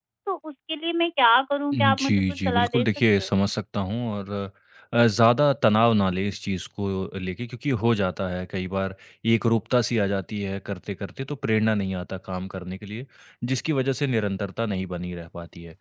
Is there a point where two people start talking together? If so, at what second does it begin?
1.7 s

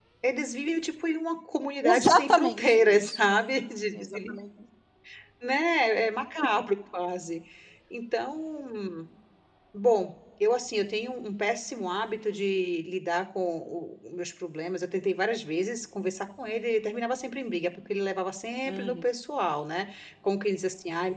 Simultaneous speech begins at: 1.8 s

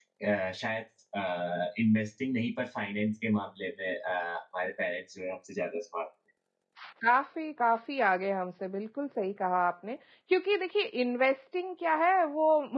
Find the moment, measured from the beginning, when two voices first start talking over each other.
none

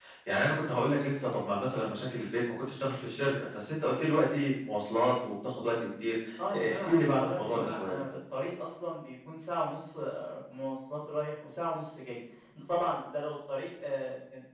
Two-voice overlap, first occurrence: 6.5 s

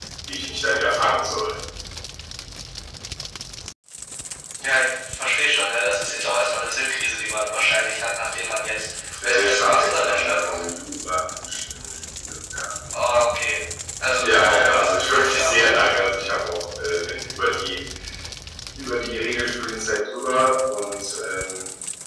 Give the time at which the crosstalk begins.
9.2 s

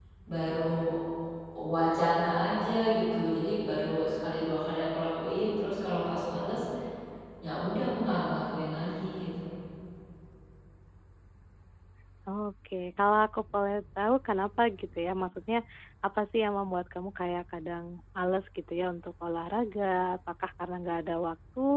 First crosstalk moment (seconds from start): none

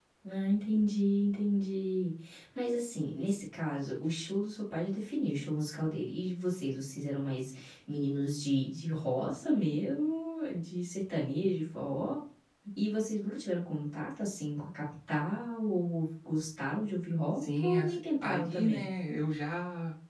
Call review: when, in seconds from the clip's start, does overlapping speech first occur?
17.4 s

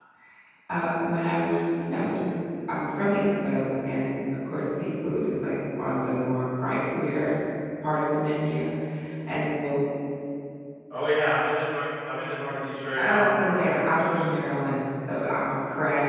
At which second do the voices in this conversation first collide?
13.0 s

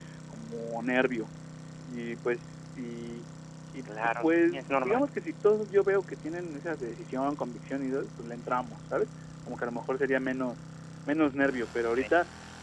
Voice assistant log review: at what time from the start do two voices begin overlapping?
3.9 s

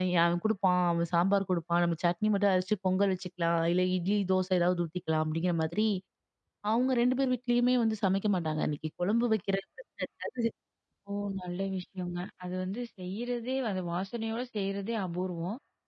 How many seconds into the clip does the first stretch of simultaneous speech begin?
none

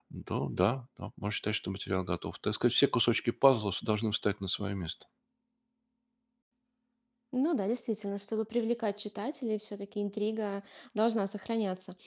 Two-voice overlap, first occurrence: none

